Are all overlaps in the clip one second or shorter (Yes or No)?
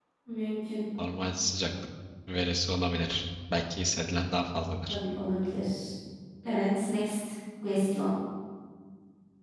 Yes